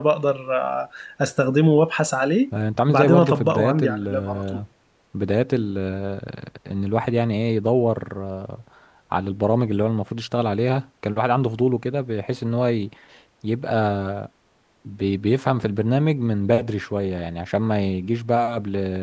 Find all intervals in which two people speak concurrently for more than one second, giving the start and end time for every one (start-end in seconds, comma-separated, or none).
2.9-4.4